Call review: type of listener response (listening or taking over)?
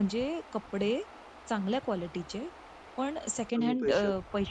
listening